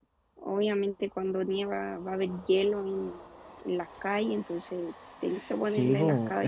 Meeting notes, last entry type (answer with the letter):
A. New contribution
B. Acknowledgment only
A